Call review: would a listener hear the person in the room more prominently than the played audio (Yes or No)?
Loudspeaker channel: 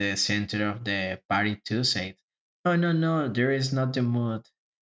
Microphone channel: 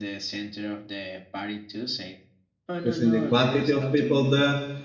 Yes